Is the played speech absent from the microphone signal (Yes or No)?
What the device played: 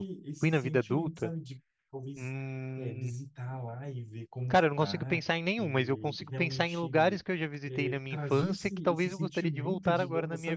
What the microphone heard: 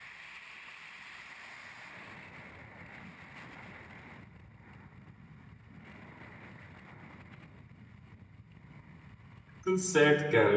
Yes